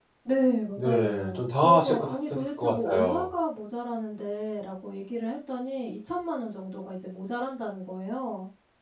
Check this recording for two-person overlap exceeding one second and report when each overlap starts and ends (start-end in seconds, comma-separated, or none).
0.7-3.3